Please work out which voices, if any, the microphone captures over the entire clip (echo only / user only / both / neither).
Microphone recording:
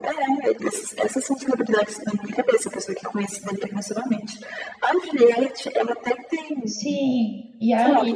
both